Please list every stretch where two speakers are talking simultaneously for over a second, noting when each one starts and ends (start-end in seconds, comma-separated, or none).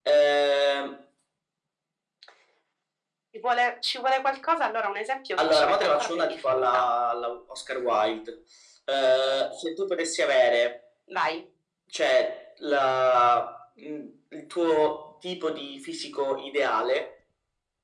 5.4-6.8